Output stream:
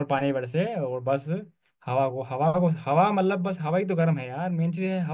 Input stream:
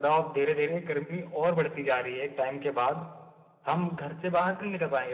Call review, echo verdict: none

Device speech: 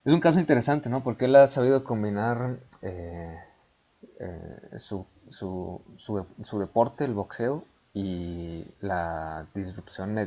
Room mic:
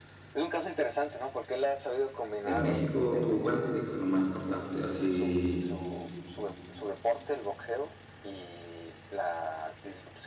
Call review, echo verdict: present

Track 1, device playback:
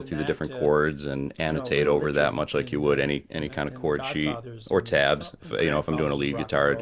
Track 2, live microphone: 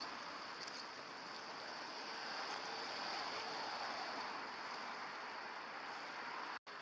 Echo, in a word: none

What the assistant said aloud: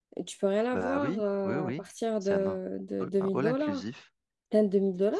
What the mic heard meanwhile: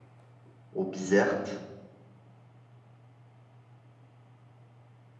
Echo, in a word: none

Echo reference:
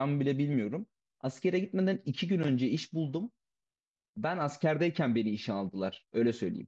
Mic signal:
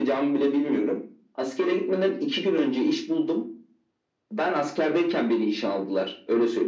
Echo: present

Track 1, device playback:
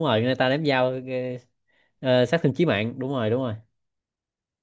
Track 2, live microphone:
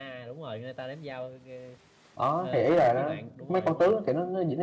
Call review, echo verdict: present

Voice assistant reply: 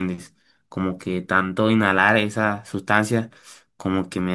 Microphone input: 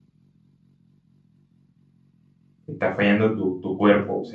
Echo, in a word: none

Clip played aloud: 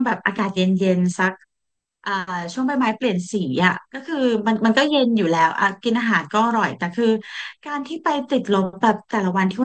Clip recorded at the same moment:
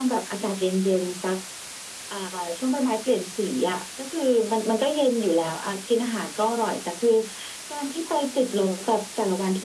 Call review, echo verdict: present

